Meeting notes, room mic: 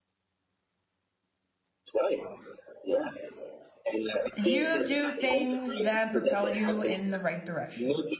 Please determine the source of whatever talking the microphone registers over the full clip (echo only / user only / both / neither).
both